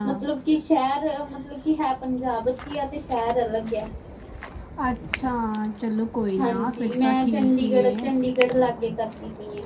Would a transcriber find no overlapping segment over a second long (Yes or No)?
No